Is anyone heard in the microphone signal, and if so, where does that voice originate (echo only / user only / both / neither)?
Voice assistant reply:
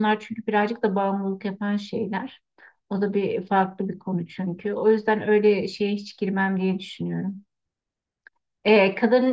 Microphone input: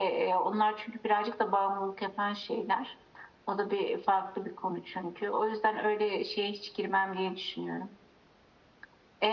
echo only